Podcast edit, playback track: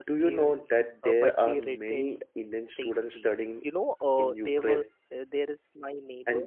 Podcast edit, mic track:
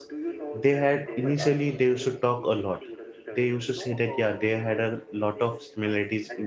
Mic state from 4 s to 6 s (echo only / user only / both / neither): both